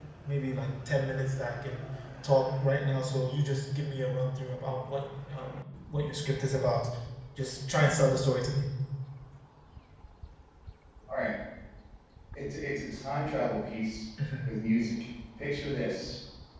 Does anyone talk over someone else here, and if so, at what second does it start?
none

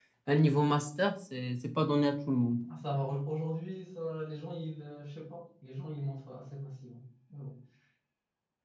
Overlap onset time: none

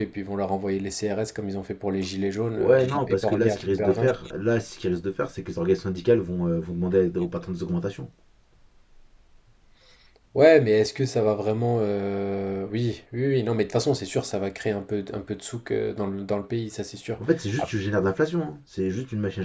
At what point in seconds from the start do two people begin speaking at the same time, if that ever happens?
2.6 s

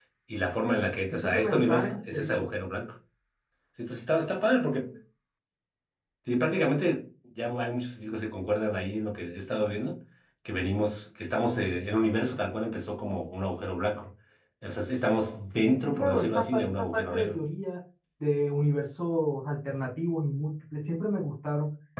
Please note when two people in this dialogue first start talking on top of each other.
1.1 s

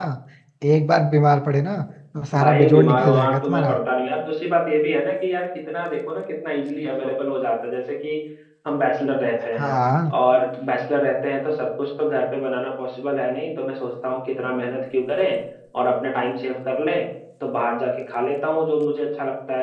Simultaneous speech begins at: 2.3 s

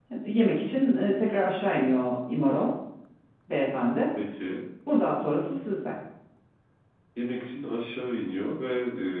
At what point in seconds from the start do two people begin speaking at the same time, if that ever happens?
none

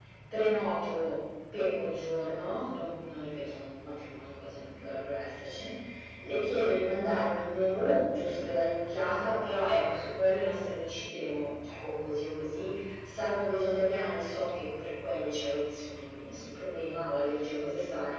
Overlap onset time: none

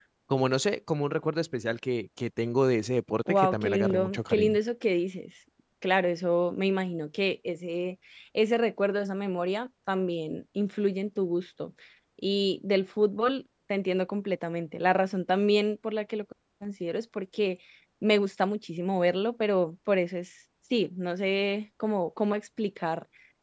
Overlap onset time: 3.3 s

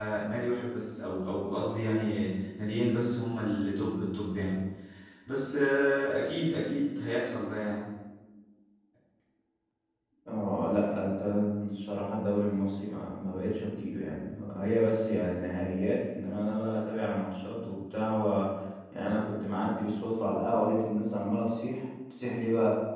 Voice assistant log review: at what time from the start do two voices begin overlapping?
none

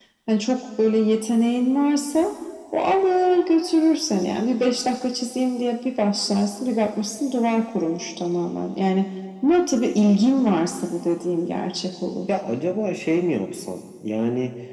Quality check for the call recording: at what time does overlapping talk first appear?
none

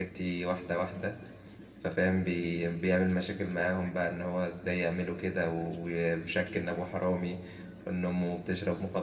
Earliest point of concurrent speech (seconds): none

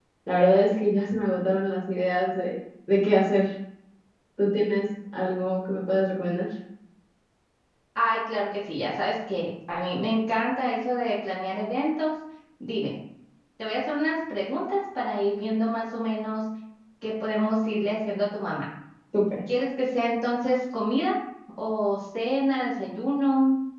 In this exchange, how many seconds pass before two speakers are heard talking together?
none

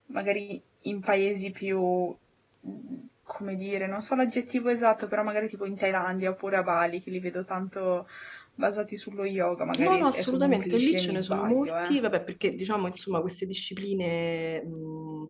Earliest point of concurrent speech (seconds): 9.7 s

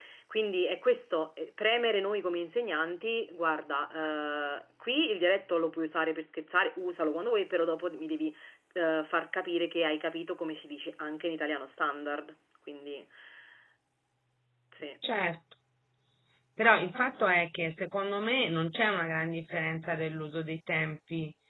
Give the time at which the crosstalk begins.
none

